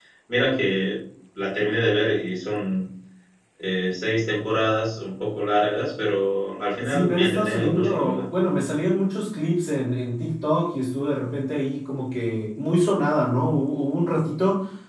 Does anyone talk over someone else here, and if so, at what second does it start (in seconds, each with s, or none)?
6.8 s